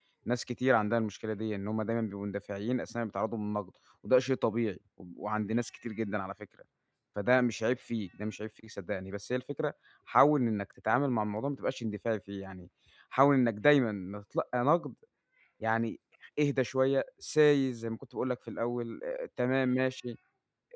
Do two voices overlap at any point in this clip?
No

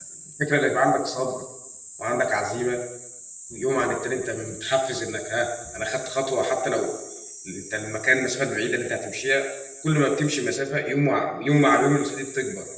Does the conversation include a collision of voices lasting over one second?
No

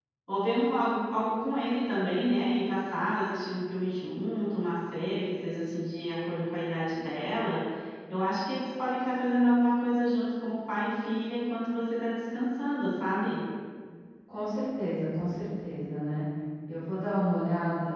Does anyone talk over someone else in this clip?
No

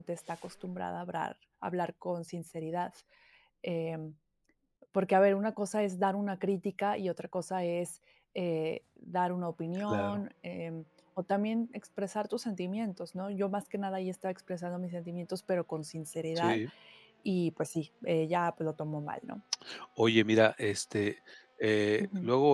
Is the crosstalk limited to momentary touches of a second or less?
Yes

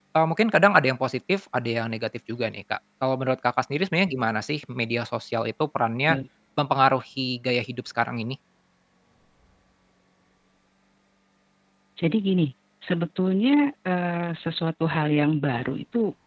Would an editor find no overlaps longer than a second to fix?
Yes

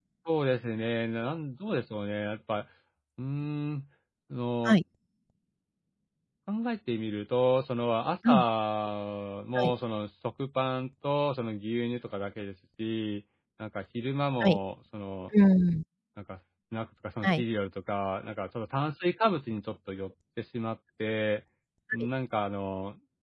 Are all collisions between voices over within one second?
Yes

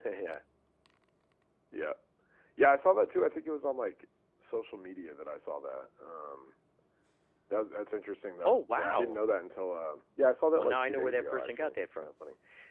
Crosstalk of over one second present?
Yes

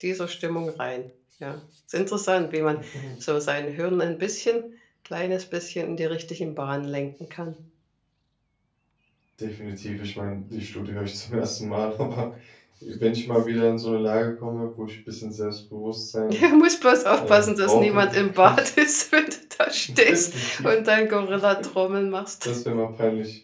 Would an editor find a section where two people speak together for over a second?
Yes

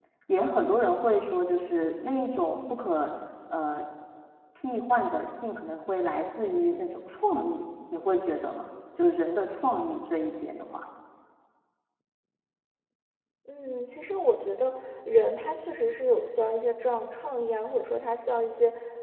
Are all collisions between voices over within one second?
Yes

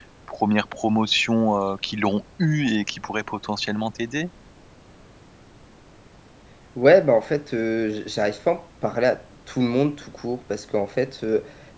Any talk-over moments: No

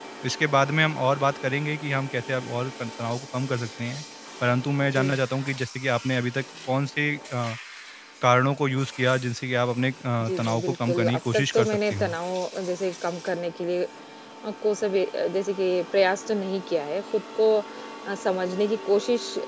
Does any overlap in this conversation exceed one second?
Yes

